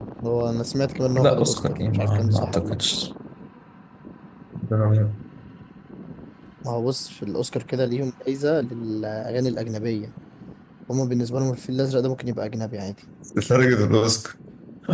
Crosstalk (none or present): present